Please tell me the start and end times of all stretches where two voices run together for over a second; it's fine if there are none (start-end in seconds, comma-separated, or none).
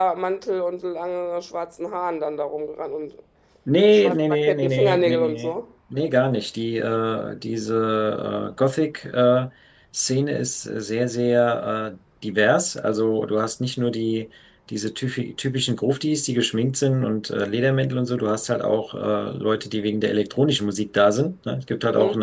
3.9-5.5